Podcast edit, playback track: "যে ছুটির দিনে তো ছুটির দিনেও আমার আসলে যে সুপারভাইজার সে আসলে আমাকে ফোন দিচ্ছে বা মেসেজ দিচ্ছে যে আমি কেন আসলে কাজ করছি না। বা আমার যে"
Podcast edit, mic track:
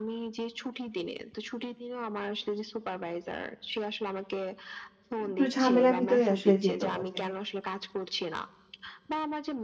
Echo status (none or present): present